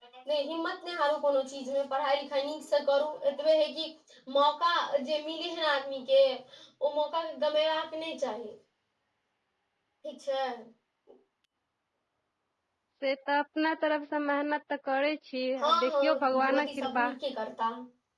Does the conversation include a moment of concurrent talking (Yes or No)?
Yes